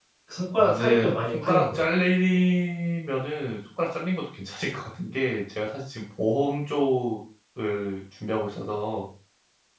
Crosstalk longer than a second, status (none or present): present